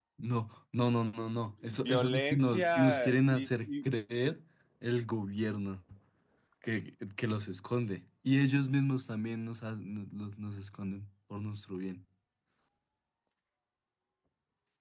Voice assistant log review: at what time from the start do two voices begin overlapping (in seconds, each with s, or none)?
1.6 s